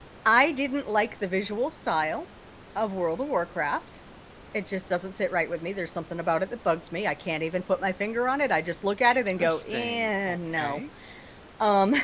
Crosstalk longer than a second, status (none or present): present